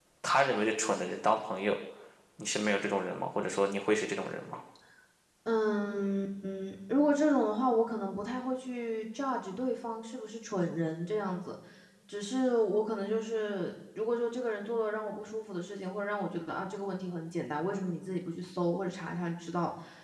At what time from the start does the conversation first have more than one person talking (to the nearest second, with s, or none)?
none